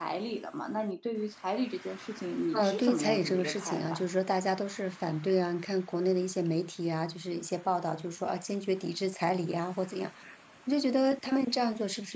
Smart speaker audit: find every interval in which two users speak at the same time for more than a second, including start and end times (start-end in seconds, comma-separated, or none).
2.6-4.0